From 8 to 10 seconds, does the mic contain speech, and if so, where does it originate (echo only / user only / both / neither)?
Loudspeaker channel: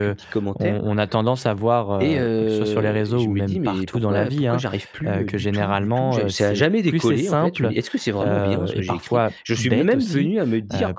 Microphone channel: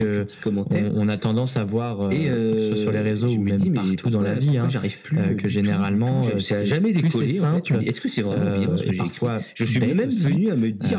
echo only